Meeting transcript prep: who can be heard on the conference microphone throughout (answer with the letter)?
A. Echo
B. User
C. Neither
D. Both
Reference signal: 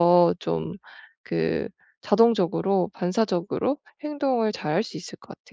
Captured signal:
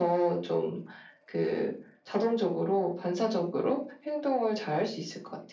A